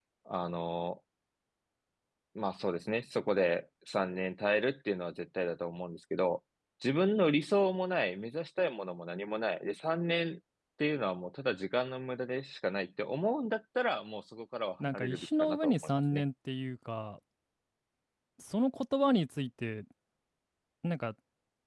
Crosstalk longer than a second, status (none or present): present